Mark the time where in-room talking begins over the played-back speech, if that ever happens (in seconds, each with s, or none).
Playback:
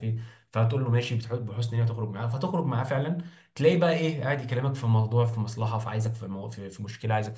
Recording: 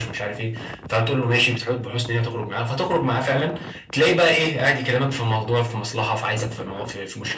none